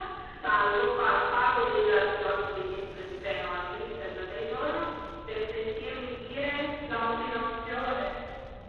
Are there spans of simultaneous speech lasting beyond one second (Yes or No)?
No